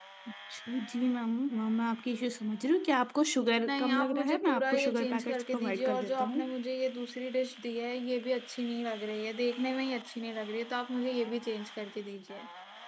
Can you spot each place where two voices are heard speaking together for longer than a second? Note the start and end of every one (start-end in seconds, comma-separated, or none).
3.7-6.4